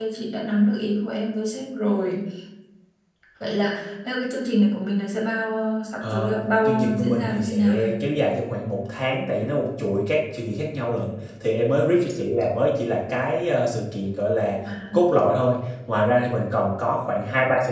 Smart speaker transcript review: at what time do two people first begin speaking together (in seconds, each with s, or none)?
6.0 s